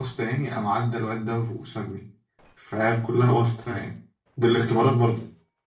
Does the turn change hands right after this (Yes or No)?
Yes